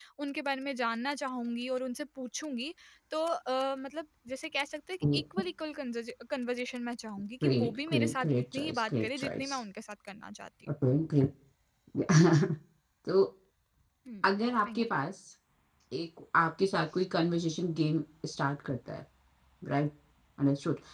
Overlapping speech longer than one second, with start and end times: 7.4-9.6

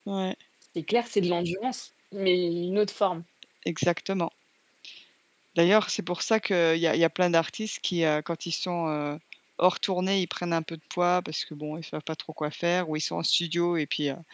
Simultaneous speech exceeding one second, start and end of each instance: none

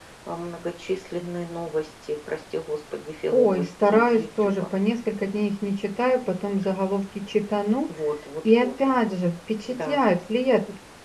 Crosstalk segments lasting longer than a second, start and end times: 3.3-4.6

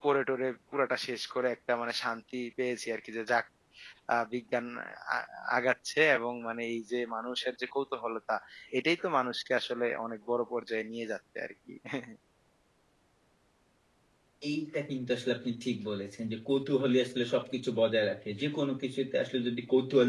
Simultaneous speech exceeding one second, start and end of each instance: none

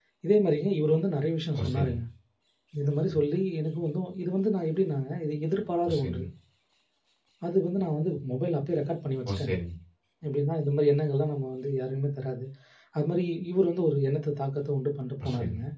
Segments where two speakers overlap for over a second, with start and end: none

